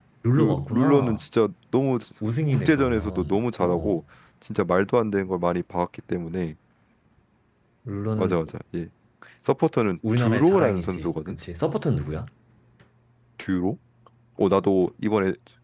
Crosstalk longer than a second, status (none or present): present